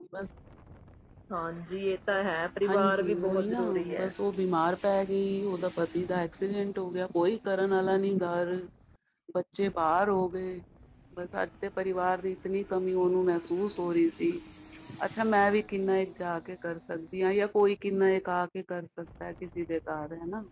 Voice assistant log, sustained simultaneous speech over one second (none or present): present